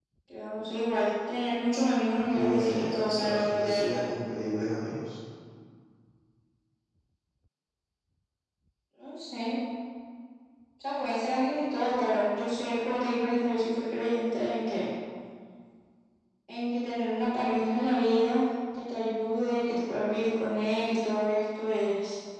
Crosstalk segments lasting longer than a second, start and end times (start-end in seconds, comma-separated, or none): 2.2-4.0